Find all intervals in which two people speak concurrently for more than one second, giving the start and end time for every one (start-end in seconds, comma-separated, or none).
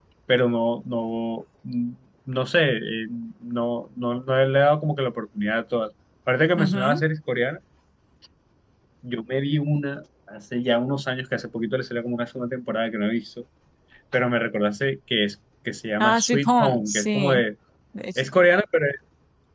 16.0-17.4